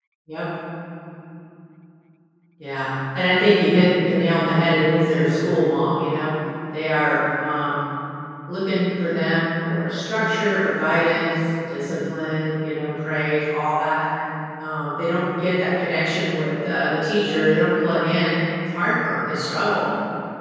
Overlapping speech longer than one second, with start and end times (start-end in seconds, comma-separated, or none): none